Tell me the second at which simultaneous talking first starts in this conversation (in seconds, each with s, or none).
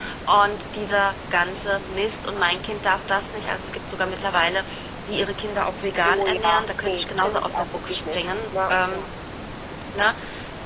6.0 s